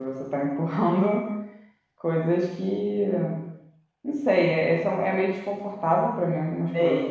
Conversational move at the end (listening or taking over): taking over